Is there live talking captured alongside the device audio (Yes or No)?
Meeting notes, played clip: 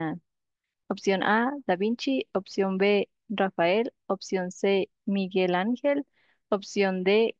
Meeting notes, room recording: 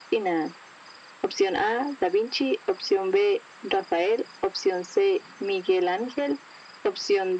No